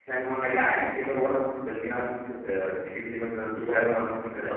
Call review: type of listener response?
taking over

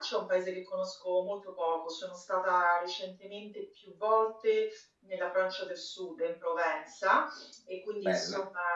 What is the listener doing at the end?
listening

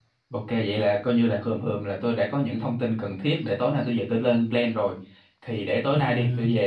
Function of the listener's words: listening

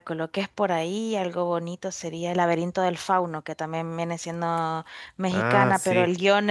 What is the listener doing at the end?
listening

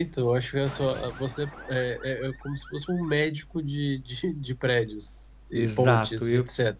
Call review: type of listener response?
taking over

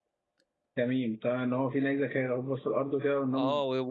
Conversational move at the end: taking over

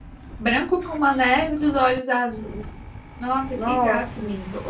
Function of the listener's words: listening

